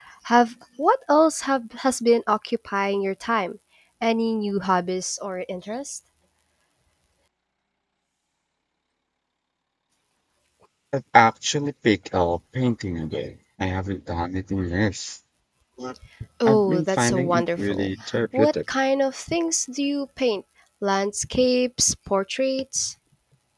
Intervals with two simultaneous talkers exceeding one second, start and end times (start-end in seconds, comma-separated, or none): 16.4-17.9